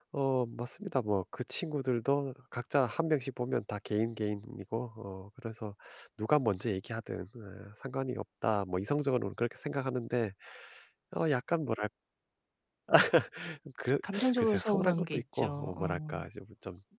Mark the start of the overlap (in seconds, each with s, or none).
14.4 s